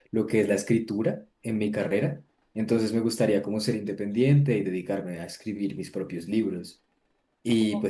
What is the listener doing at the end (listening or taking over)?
listening